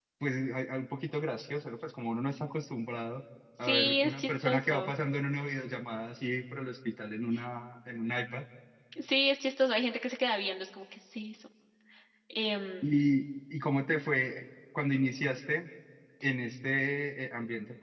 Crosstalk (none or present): present